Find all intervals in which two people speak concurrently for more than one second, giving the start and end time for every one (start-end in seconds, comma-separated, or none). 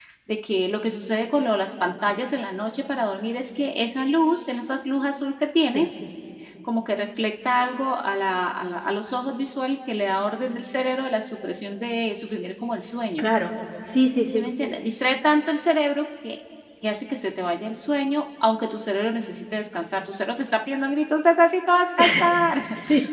none